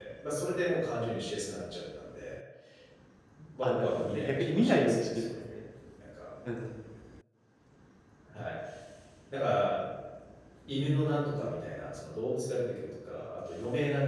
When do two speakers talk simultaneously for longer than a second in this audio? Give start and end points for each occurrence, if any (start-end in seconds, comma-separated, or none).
3.6-5.6